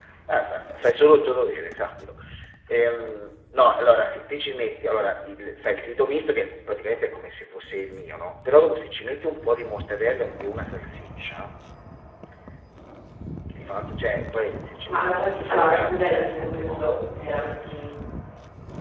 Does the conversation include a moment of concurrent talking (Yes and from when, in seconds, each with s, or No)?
Yes, from 14.9 s